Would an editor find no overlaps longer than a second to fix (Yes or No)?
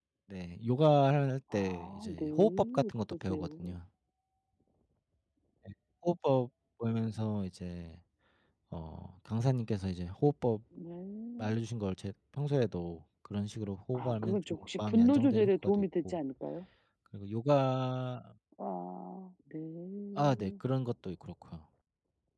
No